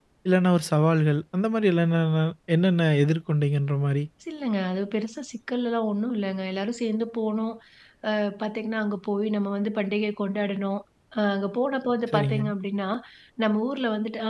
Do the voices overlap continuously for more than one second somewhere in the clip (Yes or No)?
No